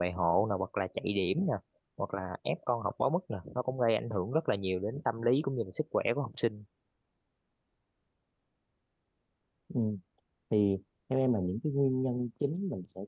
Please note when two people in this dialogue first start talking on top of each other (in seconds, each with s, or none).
none